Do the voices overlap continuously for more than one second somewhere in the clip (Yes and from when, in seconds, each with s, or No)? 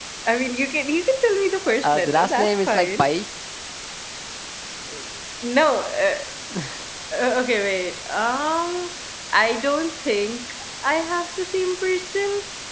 Yes, from 1.6 s